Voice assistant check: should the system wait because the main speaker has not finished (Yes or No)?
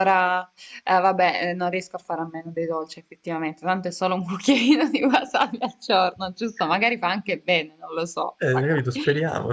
No